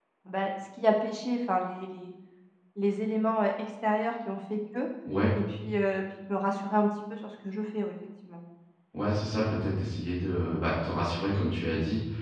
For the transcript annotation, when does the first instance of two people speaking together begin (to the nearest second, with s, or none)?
none